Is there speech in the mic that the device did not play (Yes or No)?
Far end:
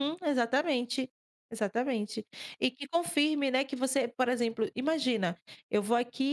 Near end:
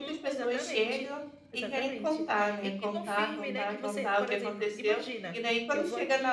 Yes